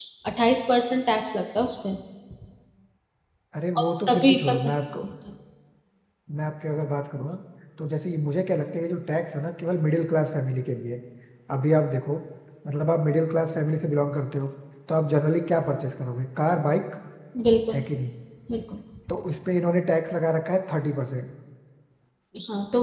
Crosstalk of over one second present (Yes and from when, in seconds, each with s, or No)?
Yes, from 3.8 s